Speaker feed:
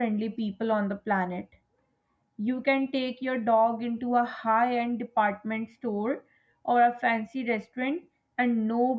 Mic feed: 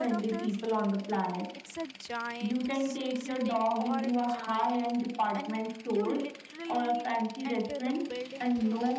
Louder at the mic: echo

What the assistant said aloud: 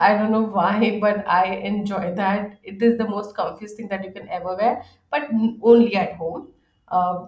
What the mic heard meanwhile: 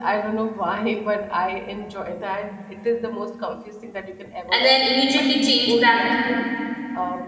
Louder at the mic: user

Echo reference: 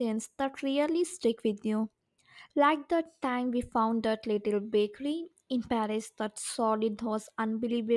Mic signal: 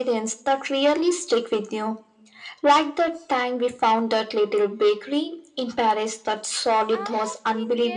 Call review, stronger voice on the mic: echo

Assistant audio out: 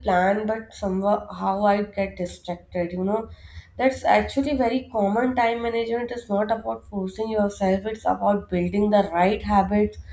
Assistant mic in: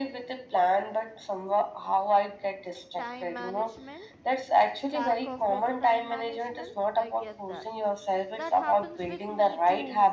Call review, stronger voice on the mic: echo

